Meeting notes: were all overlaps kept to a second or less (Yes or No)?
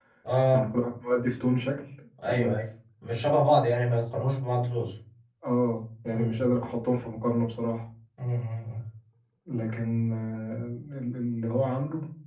Yes